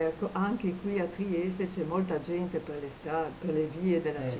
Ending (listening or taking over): listening